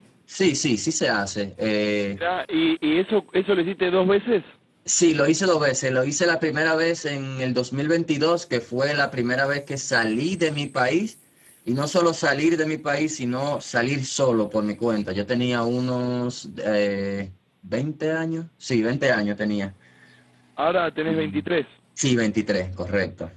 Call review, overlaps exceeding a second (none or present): none